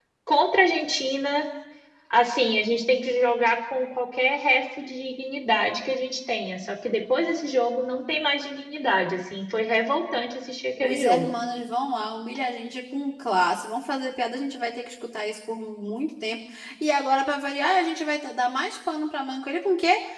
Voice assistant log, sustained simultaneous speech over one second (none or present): none